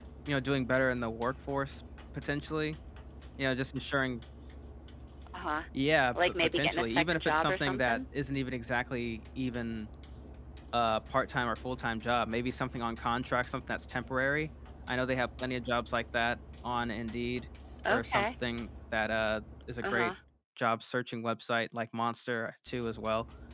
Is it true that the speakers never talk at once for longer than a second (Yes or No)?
No